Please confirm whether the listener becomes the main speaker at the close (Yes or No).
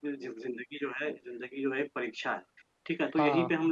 No